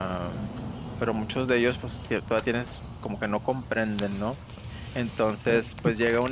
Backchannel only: Yes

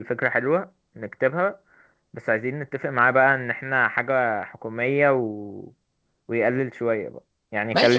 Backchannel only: No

